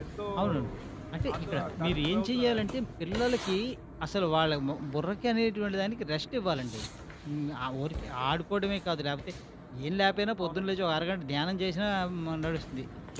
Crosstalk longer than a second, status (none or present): present